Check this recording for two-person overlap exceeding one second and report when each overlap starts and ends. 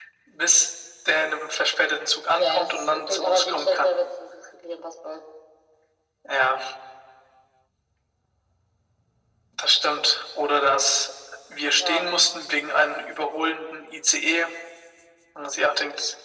2.4-3.9

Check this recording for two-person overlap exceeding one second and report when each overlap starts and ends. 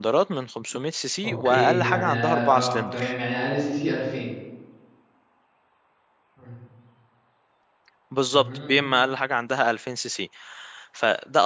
1.2-3.1

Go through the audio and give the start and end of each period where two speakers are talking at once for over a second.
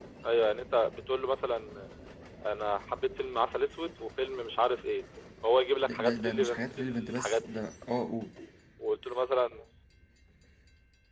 5.8-7.6

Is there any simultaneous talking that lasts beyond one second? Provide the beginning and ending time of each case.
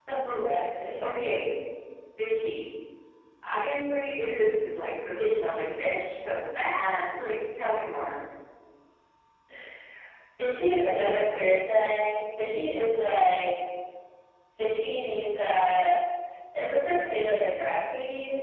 none

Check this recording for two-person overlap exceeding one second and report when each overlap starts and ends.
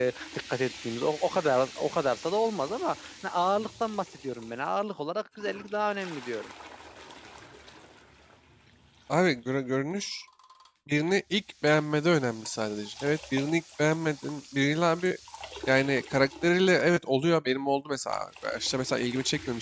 none

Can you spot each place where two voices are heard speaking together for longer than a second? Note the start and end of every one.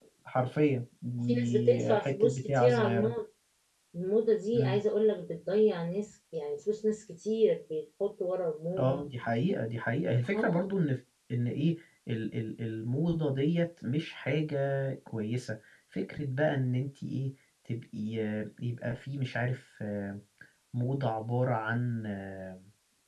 1.2-3.1

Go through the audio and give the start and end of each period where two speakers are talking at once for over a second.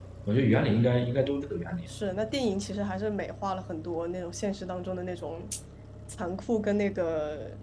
none

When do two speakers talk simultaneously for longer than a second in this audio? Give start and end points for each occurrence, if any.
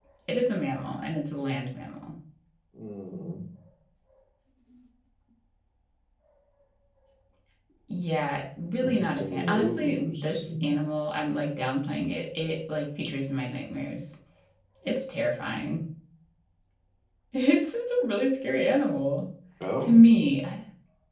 8.8-10.4

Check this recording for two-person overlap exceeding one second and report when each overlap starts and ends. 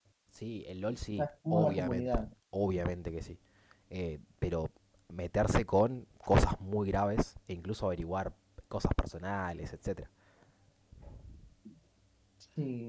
0.9-2.3

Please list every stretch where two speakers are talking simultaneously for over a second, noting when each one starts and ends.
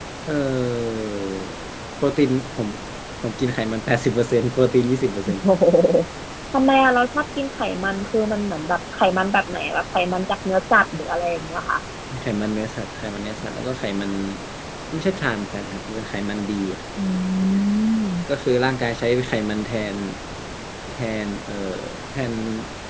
none

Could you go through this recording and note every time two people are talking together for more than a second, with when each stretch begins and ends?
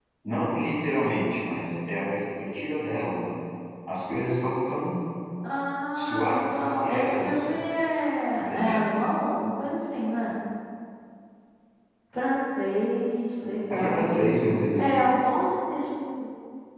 5.9-7.6

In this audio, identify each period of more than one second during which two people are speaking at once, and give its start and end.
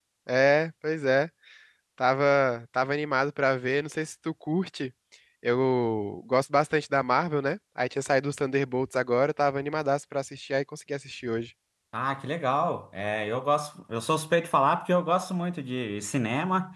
none

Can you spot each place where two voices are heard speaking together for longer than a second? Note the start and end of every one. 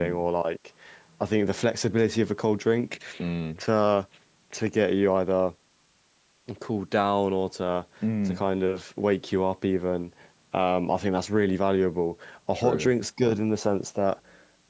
none

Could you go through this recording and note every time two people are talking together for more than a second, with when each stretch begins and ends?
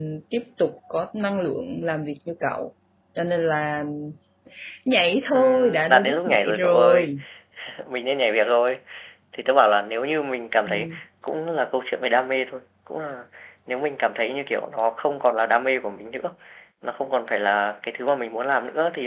5.3-7.1

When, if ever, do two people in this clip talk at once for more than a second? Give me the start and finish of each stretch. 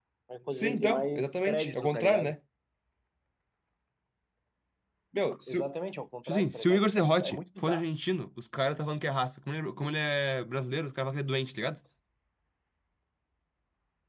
0.5-2.3, 6.2-7.8

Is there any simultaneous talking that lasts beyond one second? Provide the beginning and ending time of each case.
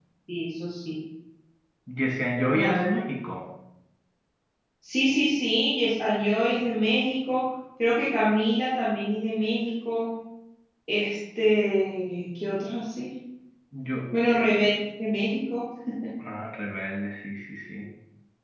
none

